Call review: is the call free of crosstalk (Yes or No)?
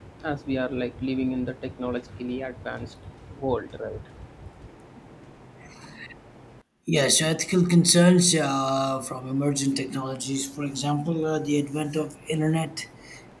Yes